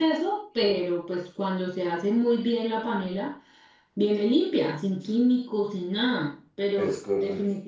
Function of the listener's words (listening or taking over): listening